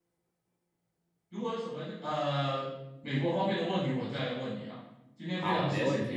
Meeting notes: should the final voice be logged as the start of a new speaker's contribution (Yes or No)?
Yes